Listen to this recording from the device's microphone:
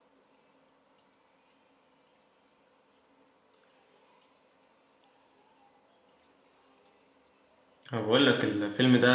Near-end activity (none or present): present